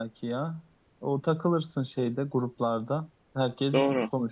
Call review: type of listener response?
listening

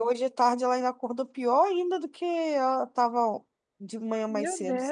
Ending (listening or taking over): taking over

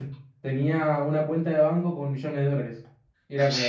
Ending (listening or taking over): listening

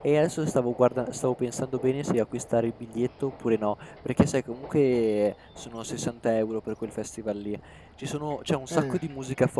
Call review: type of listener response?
listening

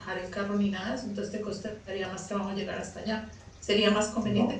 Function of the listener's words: listening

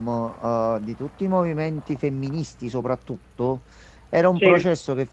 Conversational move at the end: listening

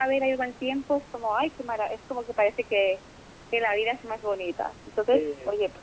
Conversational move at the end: listening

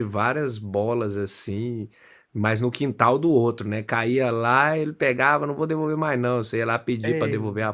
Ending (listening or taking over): listening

